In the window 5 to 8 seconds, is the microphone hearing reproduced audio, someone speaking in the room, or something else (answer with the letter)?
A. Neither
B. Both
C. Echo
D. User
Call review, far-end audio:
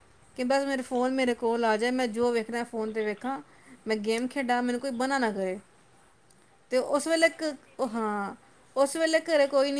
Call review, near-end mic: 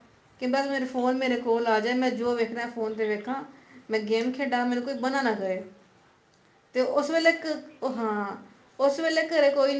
C